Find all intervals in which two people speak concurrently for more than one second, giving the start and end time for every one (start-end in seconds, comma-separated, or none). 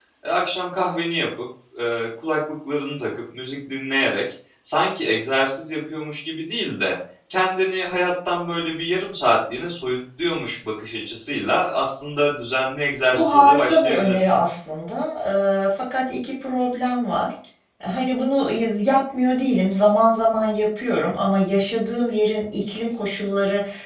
13.1-14.4